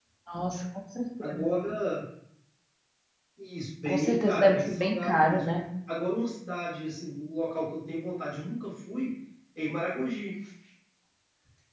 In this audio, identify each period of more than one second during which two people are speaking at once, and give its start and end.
3.9-5.4

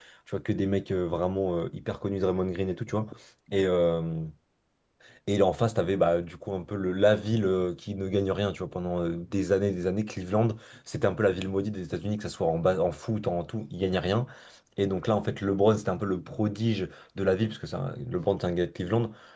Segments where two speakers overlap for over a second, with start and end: none

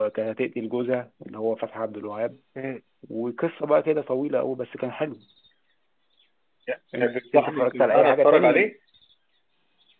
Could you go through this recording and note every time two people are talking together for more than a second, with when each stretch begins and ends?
7.0-8.7

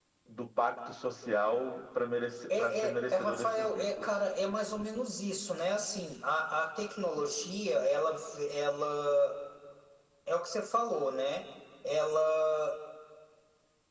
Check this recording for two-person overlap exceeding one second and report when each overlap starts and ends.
2.6-4.1

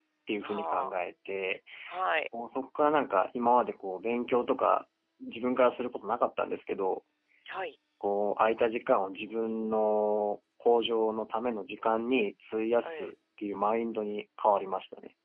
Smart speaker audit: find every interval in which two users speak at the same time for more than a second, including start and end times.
none

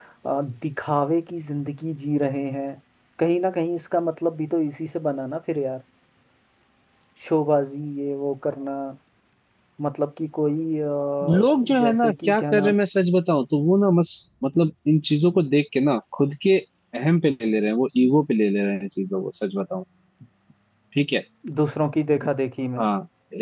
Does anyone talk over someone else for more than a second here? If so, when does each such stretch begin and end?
11.3-12.7

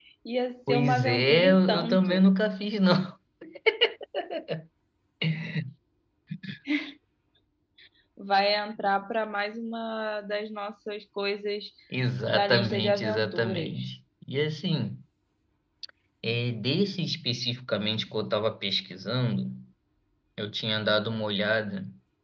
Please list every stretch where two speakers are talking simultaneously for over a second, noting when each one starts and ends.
0.7-2.3, 12.2-13.8

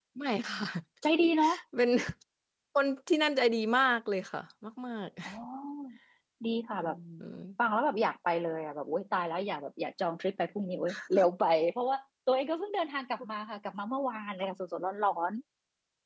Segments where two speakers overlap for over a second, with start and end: none

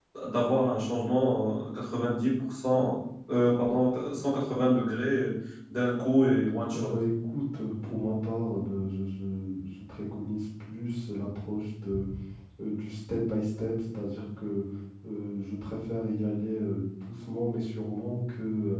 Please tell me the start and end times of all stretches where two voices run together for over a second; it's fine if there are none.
none

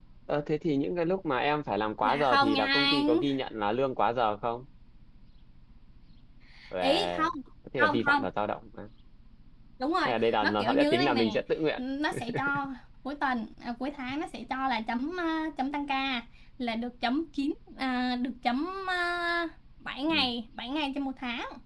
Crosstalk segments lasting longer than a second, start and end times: 2.0-3.2, 10.1-11.4

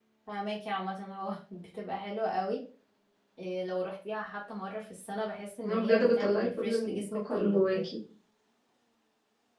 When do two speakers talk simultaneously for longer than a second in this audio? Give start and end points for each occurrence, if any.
5.6-7.9

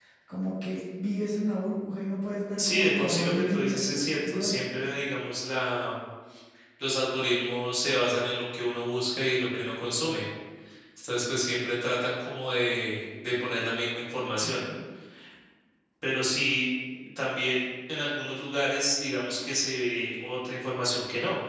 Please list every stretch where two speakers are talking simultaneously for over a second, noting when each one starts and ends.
2.6-4.5

